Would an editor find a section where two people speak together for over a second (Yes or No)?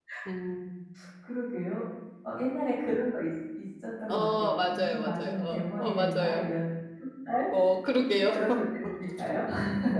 Yes